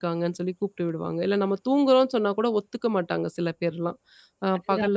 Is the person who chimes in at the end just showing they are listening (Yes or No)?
Yes